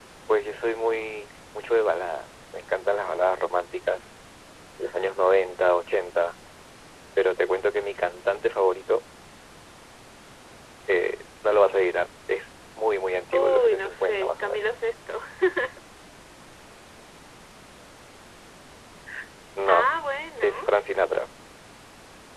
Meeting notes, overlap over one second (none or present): present